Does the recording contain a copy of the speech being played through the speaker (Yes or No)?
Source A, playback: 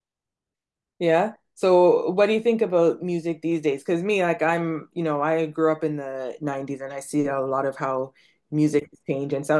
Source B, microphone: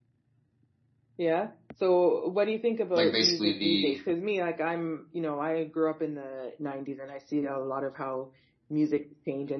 Yes